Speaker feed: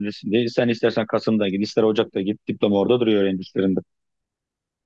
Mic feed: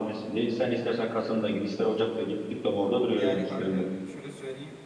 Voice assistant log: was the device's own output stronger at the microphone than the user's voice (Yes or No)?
Yes